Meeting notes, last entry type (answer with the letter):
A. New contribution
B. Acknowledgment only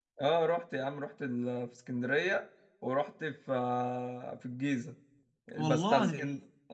B